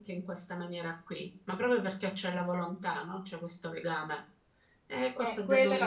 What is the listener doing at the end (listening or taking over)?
taking over